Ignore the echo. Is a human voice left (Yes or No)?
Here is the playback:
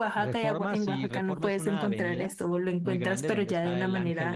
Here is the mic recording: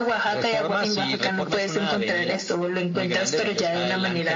No